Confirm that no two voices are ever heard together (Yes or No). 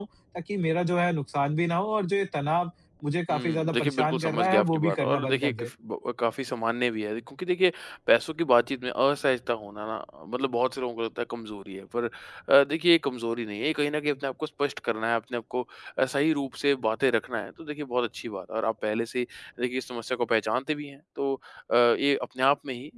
No